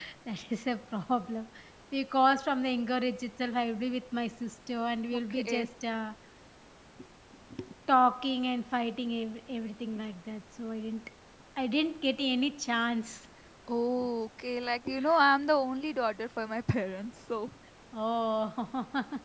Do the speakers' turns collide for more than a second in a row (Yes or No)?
No